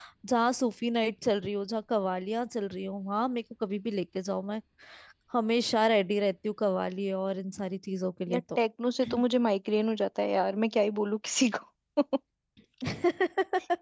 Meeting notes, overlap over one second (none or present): none